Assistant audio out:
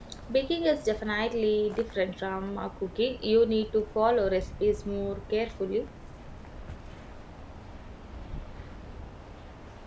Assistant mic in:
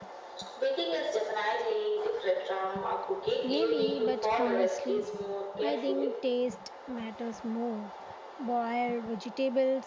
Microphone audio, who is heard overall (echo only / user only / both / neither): both